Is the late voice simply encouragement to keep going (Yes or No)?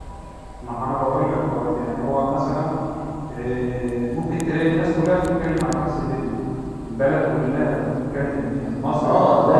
No